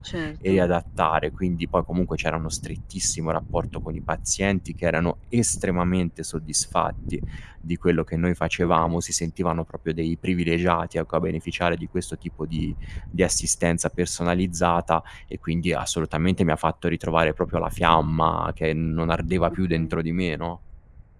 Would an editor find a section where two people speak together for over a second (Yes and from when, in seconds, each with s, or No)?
No